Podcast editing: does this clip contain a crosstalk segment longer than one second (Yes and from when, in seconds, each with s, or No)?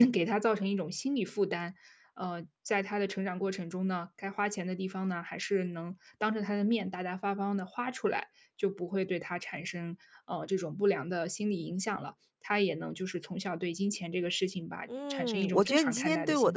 Yes, from 14.9 s